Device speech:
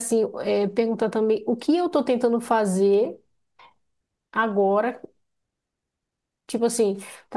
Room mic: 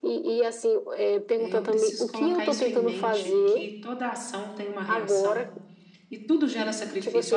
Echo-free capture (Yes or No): No